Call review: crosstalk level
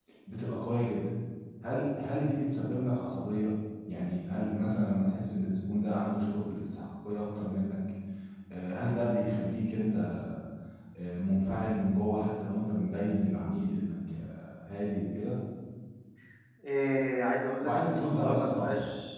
present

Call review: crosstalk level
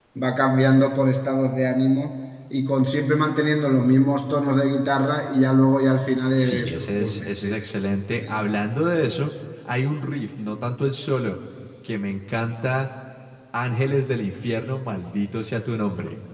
present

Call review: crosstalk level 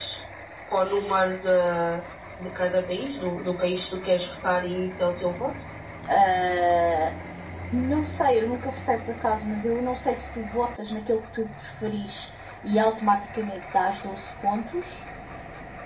none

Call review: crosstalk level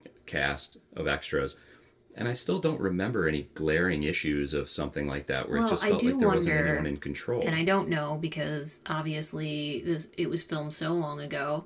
present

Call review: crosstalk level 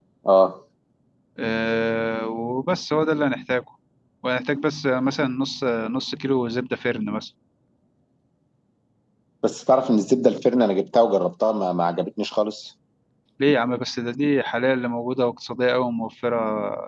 none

